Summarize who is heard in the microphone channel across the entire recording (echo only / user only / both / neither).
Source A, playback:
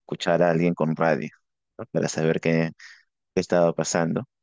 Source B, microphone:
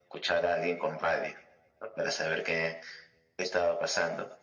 echo only